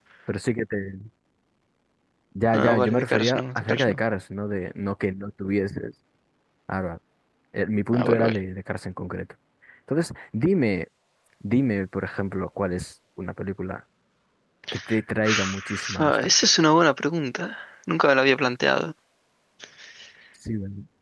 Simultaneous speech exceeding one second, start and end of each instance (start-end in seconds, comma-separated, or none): 2.5-4.0, 15.2-16.5